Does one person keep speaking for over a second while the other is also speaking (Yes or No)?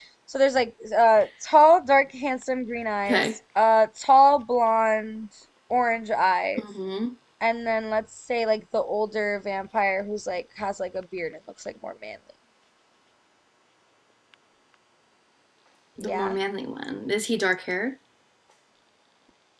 No